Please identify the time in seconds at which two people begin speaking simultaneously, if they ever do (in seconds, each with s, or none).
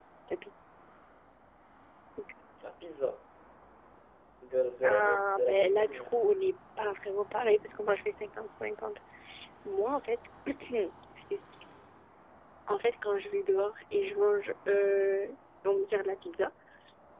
4.8 s